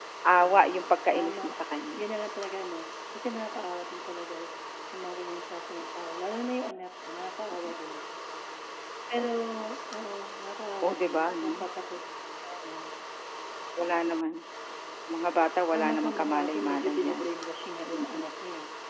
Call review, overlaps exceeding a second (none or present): present